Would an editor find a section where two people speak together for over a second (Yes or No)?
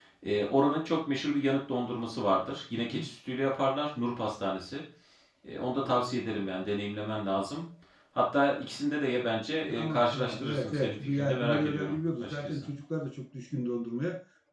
Yes